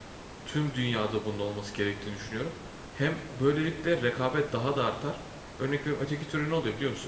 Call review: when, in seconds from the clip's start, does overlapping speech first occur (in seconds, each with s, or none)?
none